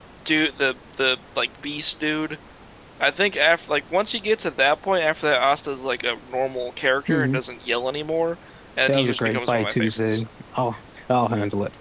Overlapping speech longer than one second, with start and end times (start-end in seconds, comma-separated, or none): 8.9-10.2